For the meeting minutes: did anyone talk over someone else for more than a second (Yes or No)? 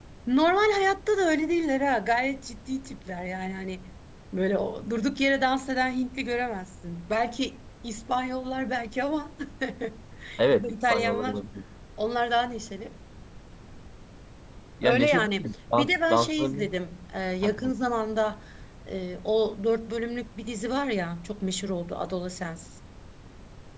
Yes